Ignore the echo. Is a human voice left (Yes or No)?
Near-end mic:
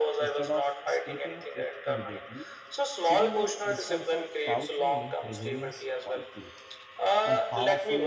Yes